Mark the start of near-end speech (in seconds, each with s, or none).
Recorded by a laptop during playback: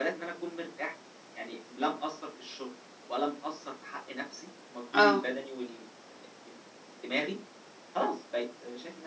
4.9 s